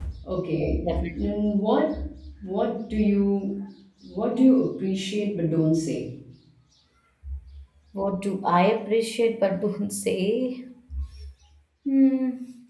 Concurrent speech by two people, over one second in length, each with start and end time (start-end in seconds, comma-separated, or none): none